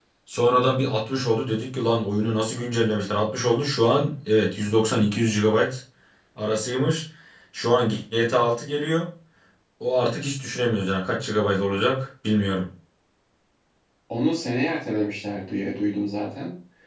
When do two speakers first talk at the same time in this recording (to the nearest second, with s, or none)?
none